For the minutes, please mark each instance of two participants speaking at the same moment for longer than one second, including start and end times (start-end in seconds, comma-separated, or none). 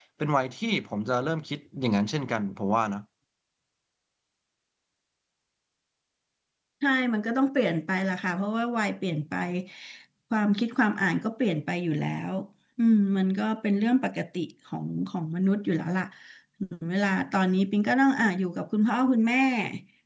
none